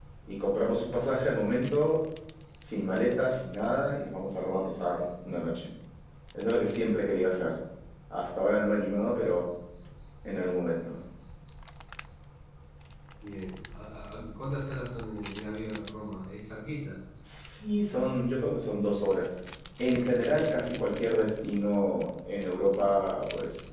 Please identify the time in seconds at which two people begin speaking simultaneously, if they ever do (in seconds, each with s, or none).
none